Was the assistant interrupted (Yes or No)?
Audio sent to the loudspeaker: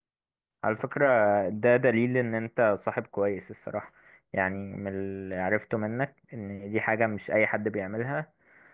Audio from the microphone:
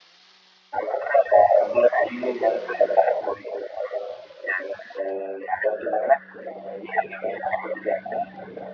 No